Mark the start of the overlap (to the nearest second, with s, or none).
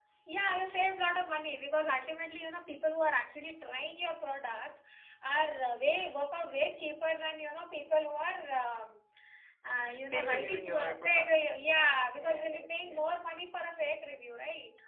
10 s